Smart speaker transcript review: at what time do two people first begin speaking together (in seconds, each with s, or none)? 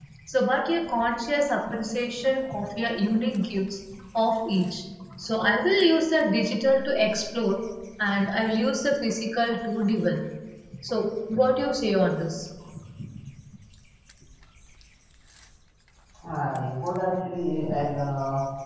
none